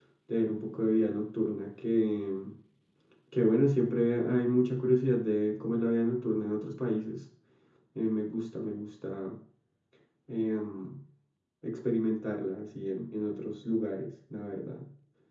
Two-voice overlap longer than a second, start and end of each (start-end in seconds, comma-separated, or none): none